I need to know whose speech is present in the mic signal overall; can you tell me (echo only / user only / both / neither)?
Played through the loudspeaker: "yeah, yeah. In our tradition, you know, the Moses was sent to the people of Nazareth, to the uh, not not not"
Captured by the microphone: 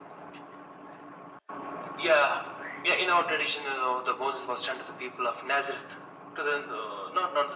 echo only